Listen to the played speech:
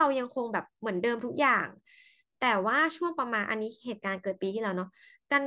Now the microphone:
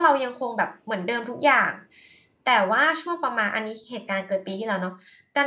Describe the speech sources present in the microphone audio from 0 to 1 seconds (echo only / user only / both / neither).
echo only